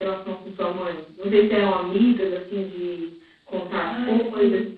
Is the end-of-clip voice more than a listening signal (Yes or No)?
Yes